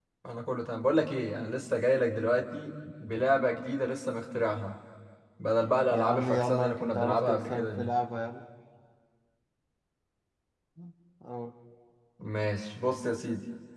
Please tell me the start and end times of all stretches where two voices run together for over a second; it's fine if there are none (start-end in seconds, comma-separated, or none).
5.9-7.9